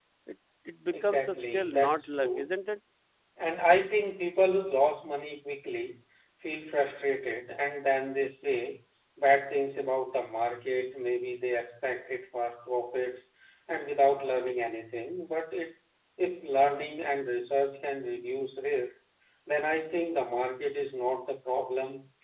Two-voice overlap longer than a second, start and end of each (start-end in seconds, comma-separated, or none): 0.9-2.5